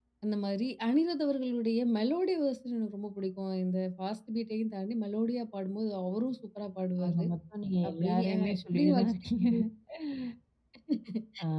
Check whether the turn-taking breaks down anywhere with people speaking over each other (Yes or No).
Yes